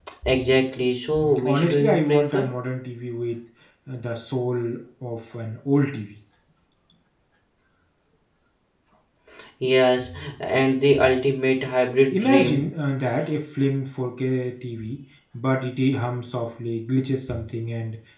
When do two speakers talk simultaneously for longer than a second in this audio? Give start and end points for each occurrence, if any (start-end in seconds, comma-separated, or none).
1.2-2.4